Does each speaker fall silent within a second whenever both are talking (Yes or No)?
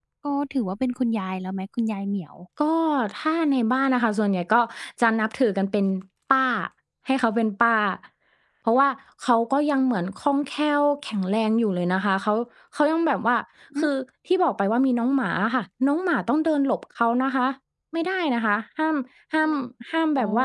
Yes